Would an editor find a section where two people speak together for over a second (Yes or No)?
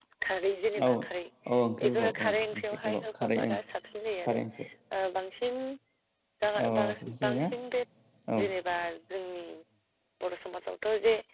Yes